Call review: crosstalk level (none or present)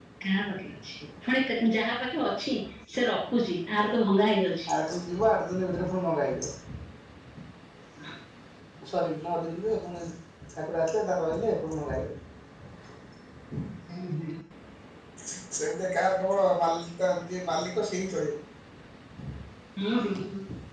none